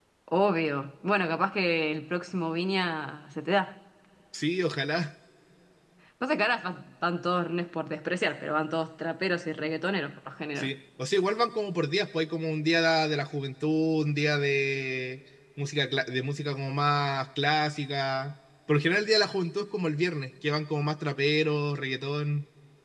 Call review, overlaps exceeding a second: none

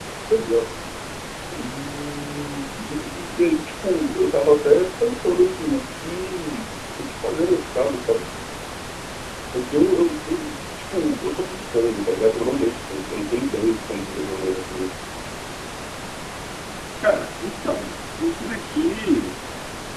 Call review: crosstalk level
none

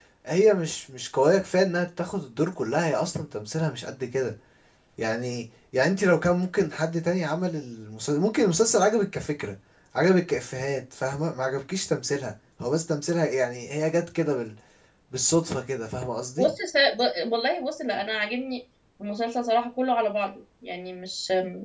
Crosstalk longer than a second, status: none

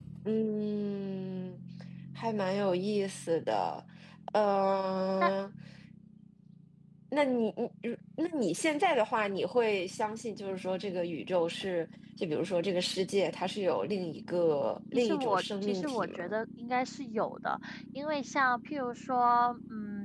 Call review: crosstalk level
present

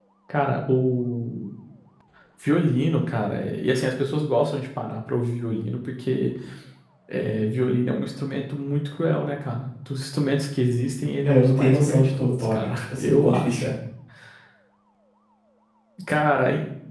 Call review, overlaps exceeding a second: present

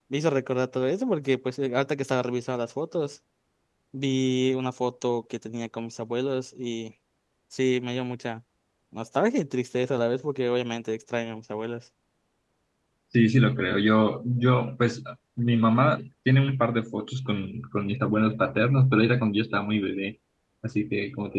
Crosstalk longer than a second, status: none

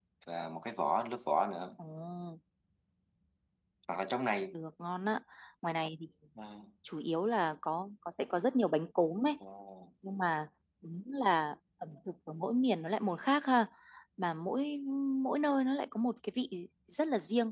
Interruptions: none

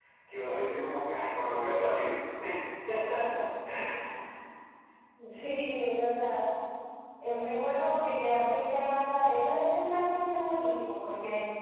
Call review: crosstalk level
none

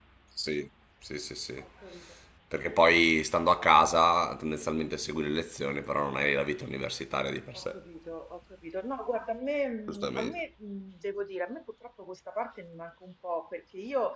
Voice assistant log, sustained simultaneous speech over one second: none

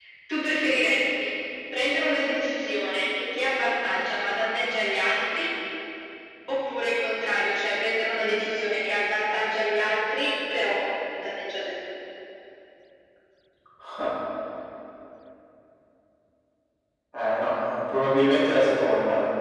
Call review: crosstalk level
none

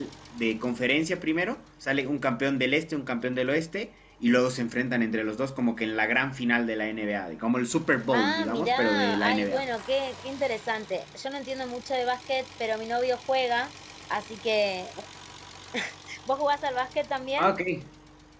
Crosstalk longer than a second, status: present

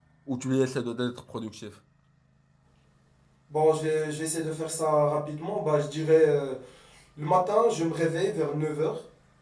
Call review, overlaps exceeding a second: none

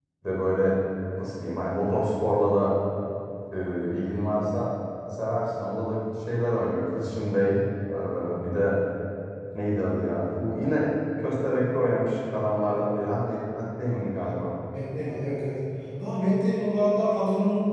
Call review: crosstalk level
none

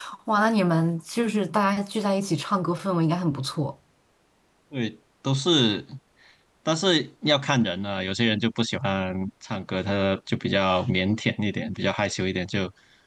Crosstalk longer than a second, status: none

